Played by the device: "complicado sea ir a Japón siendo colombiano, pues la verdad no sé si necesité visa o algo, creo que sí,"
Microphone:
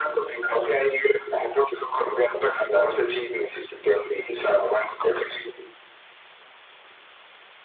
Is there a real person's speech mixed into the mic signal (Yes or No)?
No